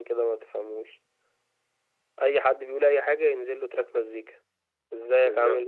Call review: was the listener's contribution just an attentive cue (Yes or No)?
Yes